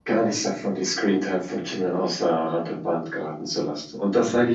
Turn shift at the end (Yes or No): No